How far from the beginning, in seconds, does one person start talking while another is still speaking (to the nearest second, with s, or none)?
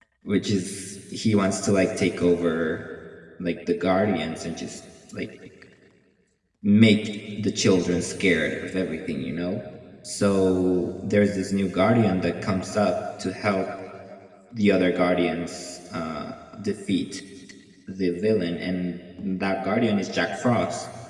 none